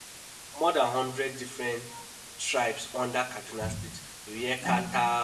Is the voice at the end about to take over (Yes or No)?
No